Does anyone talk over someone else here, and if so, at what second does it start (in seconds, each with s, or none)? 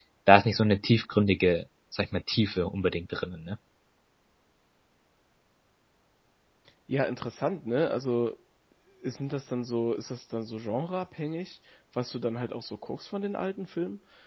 none